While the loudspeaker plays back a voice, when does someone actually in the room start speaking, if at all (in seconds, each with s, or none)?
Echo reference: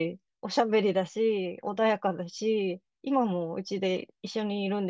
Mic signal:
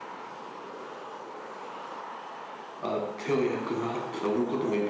2.8 s